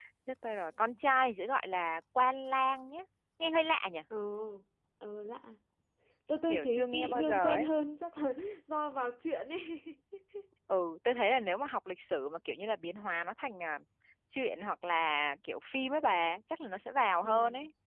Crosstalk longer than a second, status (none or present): present